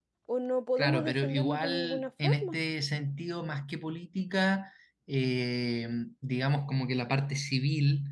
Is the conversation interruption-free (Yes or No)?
No